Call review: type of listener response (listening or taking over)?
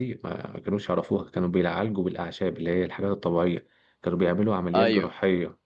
listening